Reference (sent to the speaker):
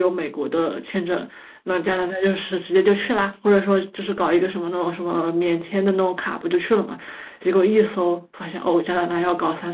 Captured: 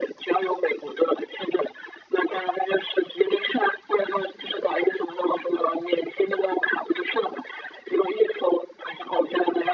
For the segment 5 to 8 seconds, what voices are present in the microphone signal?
echo only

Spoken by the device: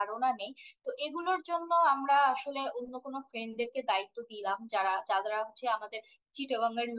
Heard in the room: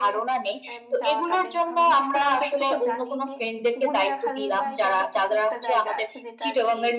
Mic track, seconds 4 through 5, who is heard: both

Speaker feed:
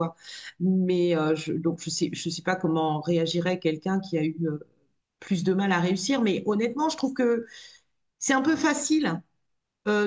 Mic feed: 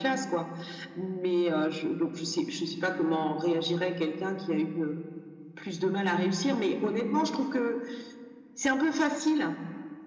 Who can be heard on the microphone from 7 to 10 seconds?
echo only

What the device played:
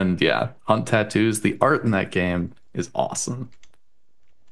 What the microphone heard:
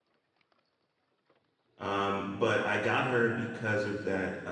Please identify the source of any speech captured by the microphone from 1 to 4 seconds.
user only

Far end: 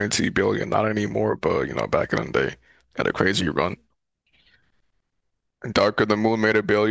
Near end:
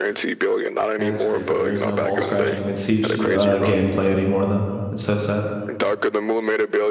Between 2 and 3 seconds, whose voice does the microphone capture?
both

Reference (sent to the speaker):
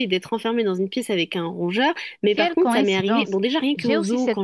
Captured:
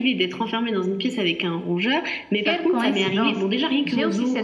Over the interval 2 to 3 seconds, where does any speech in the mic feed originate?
echo only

